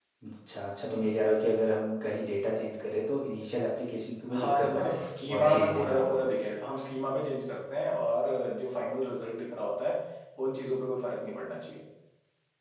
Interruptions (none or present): present